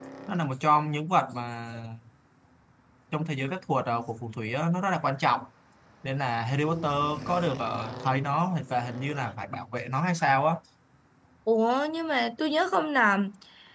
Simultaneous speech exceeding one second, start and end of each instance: none

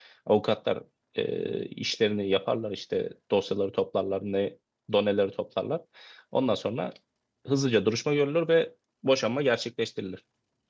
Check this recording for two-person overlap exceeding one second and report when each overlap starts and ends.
none

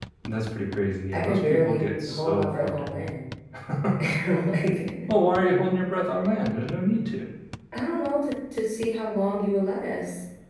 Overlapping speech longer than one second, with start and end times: 1.1-3.1

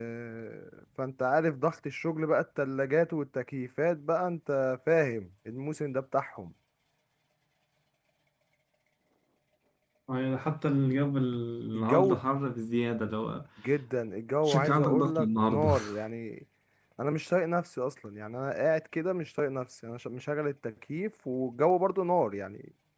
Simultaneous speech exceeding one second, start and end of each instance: 14.5-15.7

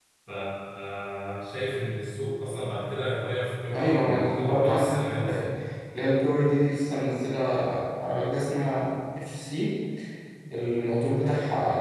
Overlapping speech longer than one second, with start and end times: 3.7-5.4

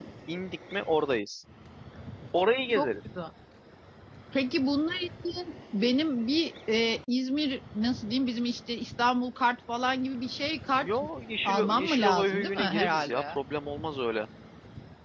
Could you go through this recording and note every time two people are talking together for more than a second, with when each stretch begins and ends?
11.4-13.4

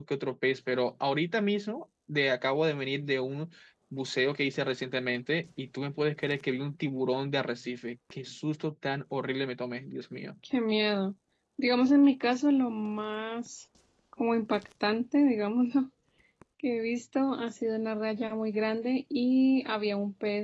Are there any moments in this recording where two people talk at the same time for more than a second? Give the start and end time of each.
none

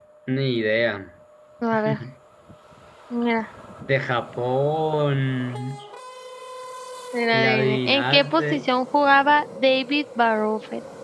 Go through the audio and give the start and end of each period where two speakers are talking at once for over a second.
7.3-8.6

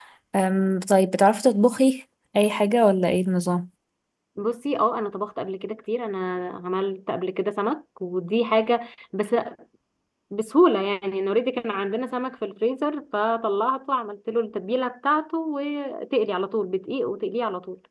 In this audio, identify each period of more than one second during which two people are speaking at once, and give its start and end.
none

